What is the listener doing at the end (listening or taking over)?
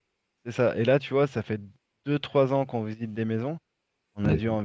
listening